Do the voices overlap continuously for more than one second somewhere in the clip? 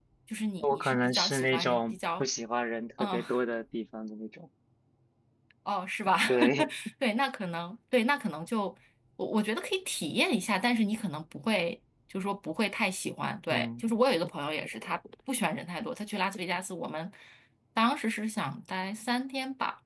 Yes, from 0.6 s

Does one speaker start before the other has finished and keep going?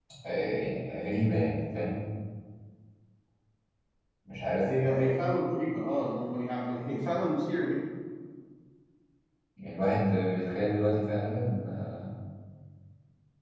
No

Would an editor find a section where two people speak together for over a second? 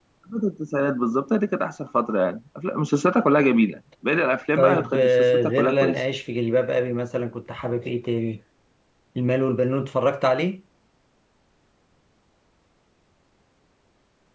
Yes, from 4.5 s

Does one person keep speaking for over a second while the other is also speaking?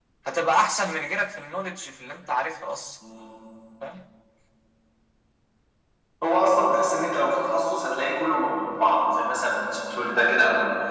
No

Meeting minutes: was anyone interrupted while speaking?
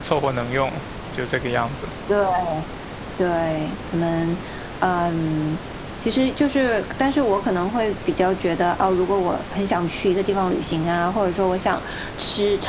No

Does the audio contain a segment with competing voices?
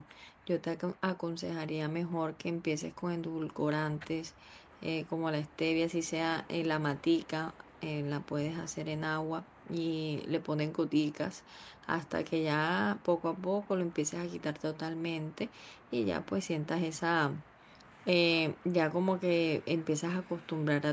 No

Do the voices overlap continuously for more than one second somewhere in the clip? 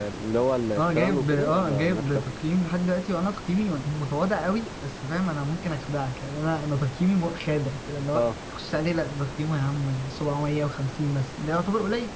Yes, from 0.8 s

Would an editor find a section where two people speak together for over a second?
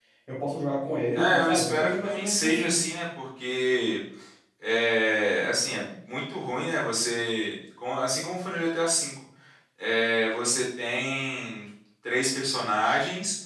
Yes, from 1.1 s

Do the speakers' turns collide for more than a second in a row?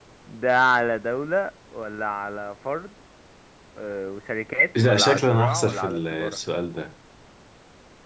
Yes, from 4.8 s

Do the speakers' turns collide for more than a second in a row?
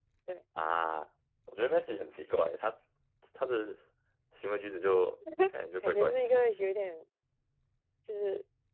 No

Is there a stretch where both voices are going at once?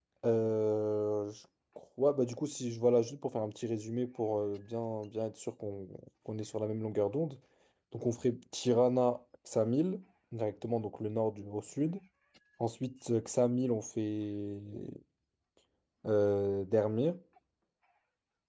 No

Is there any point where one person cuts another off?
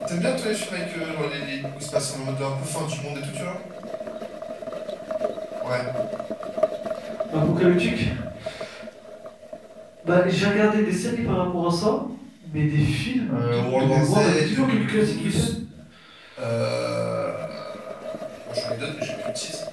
Yes, from 13.3 s

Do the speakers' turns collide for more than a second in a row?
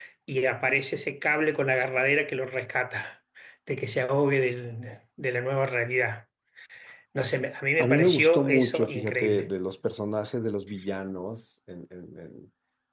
Yes, from 7.8 s

